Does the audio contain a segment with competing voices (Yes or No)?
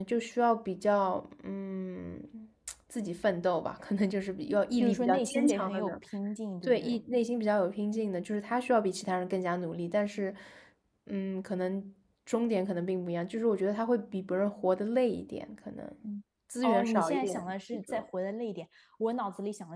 Yes